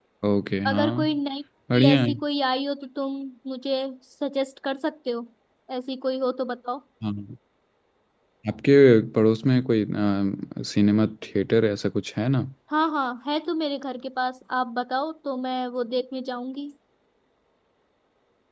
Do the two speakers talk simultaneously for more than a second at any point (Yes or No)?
No